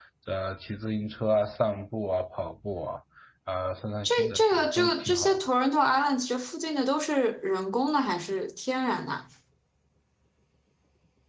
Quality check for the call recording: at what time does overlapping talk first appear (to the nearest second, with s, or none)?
4 s